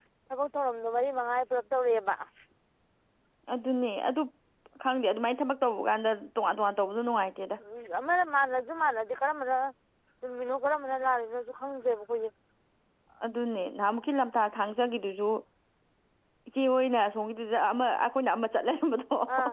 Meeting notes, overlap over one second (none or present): none